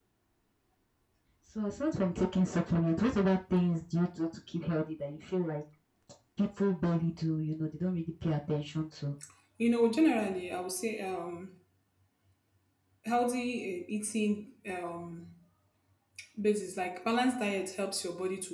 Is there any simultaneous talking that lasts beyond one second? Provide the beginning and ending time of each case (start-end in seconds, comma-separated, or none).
none